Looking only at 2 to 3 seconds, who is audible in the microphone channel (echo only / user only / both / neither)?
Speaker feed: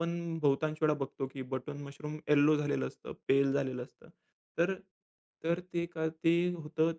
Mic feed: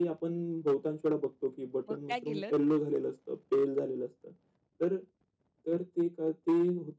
both